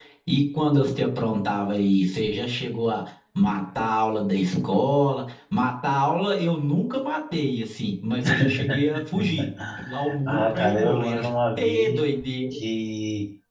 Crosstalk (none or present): present